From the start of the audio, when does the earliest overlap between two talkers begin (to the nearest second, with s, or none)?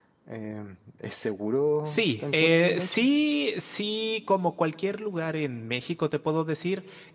2 s